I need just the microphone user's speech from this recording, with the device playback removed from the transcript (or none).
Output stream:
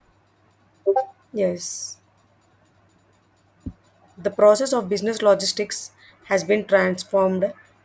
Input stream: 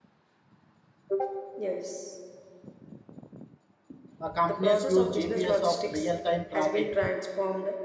uh, companies use GPS of real-time tracking.